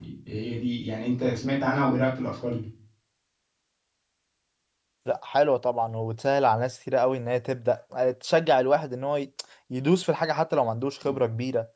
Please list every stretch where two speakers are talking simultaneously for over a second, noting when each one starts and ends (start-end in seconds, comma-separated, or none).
none